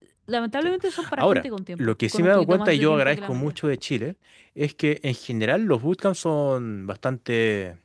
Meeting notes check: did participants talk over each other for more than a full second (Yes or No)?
Yes